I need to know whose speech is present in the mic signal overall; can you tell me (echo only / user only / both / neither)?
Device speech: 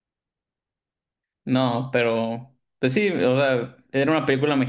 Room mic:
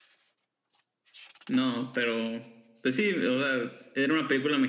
echo only